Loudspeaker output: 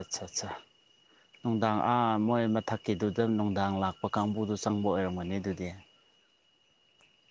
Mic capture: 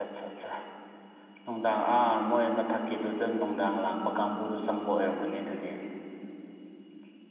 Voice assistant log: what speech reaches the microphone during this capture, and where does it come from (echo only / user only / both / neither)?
echo only